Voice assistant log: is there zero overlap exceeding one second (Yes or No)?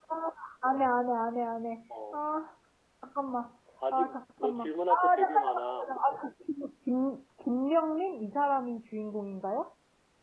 No